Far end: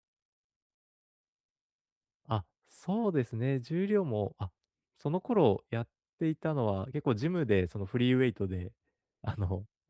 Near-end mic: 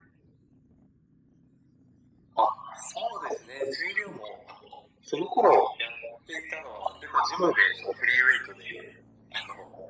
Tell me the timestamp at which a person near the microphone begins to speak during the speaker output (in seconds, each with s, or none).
none